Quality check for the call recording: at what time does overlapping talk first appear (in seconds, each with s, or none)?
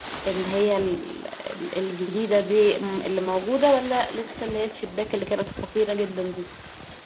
none